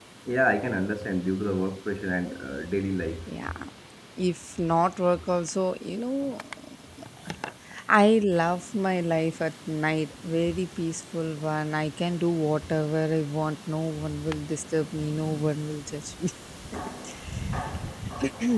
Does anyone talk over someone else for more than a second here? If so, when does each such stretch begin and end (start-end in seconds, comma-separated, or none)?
none